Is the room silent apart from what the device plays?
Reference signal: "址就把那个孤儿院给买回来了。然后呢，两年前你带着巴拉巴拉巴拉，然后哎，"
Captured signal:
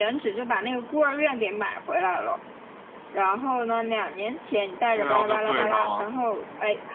No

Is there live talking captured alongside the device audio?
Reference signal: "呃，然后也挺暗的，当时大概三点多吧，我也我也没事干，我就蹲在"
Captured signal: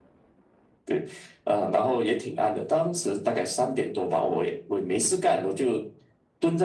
No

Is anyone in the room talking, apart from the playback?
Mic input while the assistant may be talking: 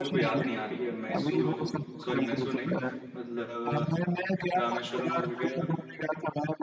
Yes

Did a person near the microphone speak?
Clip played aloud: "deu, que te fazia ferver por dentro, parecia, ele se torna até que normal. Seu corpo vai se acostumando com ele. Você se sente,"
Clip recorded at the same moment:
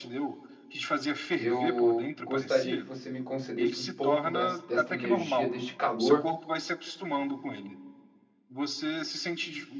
Yes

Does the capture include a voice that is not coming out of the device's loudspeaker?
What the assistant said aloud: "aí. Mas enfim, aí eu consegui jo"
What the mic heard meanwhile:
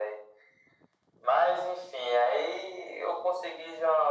No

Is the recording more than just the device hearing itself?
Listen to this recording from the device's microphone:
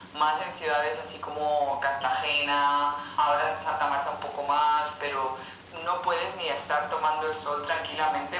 No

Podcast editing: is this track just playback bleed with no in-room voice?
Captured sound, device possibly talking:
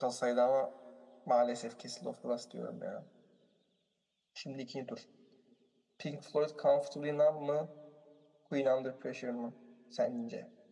Yes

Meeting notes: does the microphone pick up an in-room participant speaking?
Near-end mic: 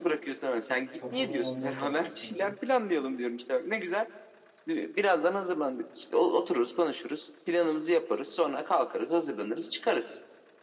Yes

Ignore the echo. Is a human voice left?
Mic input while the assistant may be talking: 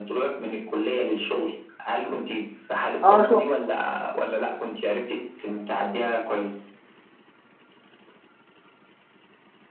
Yes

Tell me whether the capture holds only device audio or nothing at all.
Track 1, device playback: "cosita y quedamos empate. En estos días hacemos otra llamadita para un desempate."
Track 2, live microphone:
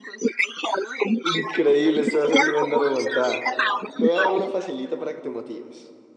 No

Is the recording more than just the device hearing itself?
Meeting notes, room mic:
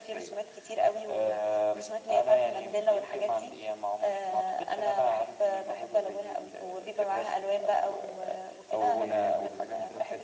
Yes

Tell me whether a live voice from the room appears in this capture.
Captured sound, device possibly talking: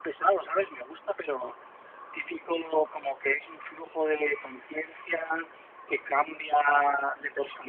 No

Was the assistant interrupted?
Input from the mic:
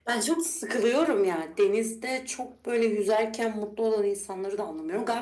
No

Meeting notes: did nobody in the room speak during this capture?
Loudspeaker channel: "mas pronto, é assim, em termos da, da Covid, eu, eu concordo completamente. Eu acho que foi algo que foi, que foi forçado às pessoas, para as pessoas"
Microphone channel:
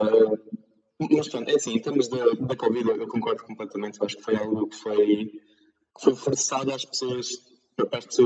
Yes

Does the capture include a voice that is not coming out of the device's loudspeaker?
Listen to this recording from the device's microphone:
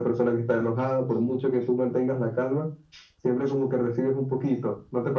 No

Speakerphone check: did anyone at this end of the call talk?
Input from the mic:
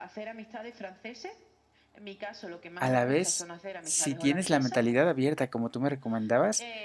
Yes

